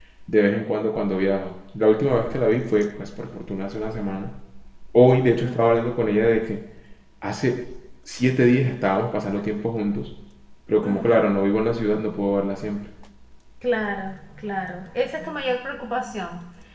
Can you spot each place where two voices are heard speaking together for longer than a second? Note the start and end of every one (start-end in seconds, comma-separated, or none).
none